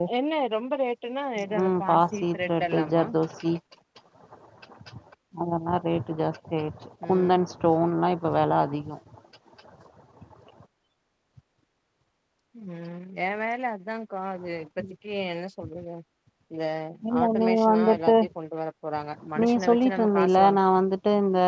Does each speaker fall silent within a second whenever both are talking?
No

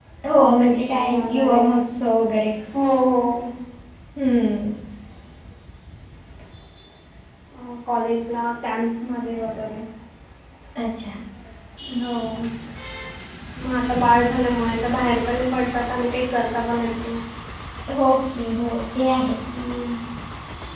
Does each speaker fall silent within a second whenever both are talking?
No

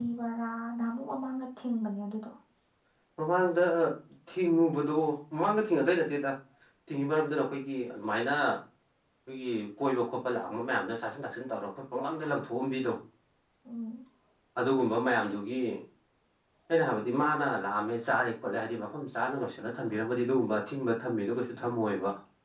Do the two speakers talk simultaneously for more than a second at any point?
No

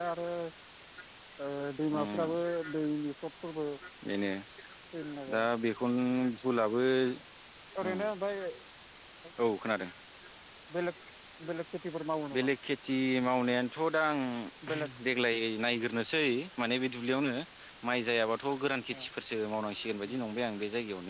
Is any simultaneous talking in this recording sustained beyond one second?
No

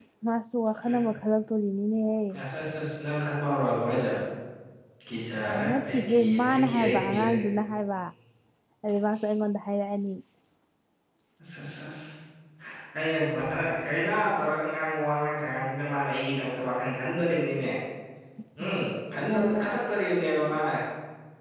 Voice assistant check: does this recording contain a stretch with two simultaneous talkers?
Yes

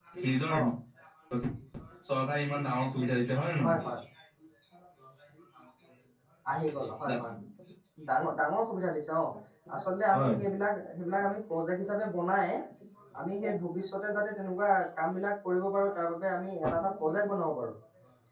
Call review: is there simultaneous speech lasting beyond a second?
No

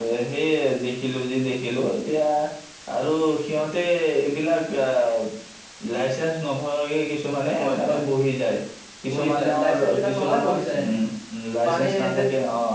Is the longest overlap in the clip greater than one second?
Yes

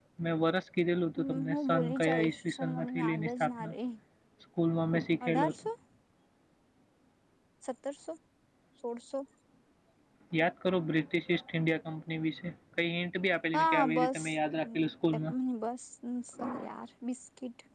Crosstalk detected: Yes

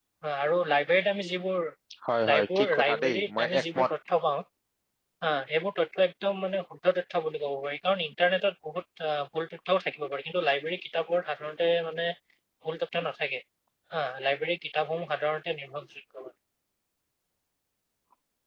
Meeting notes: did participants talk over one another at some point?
Yes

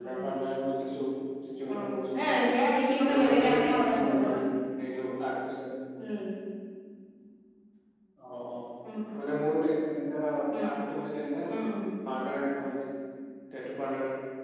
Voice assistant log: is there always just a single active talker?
No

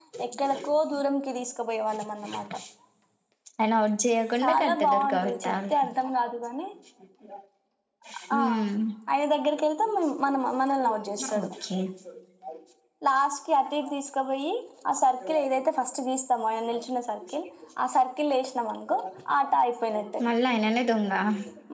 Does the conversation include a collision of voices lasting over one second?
Yes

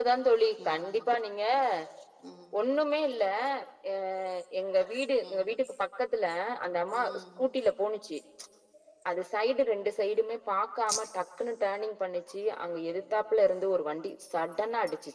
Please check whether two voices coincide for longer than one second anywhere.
No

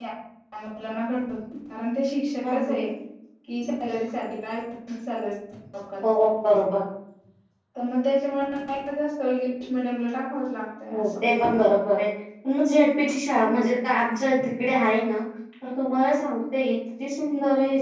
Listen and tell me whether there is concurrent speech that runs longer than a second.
No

